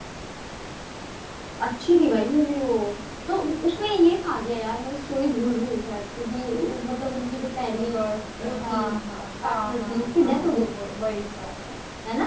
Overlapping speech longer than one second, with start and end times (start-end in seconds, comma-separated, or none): 9.4-10.7